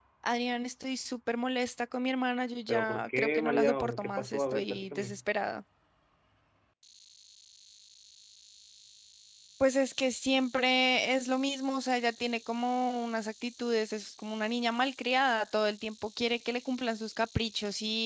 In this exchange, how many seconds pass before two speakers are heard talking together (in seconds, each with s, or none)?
2.7 s